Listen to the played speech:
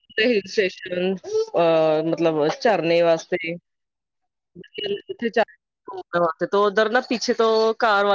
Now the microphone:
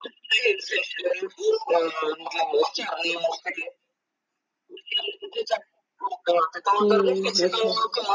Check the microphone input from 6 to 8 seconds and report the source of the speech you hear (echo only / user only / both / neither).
both